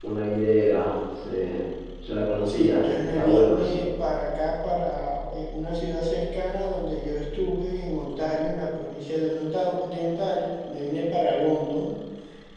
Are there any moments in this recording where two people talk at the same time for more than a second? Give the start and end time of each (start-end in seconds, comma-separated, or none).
2.4-3.8